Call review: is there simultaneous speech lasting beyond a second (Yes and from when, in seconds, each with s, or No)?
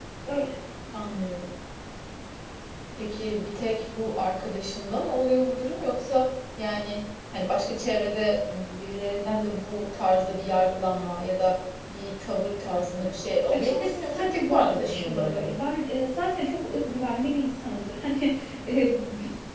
Yes, from 13.5 s